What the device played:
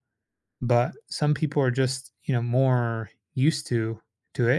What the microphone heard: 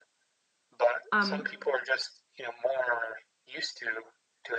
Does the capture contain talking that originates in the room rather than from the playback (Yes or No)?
Yes